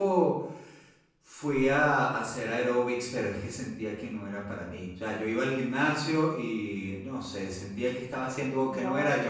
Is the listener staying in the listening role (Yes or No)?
Yes